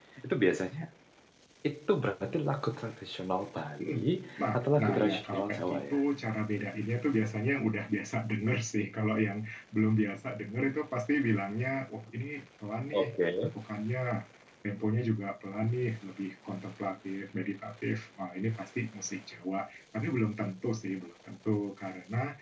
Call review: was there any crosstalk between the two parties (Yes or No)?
Yes